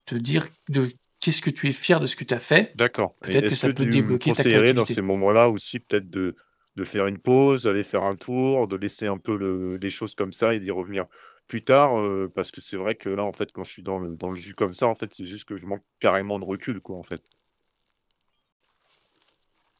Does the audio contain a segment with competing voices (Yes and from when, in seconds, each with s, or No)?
Yes, from 3.2 s